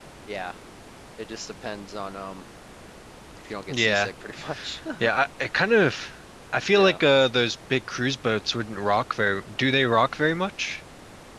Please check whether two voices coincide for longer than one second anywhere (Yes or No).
No